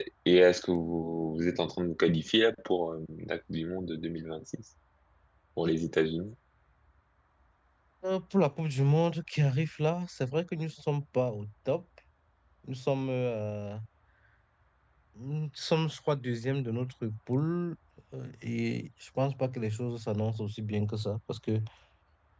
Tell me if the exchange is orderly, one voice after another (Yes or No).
Yes